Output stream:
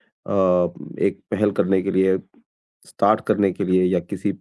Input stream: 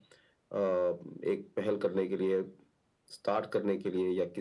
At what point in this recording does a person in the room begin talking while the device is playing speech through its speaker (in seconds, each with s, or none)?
none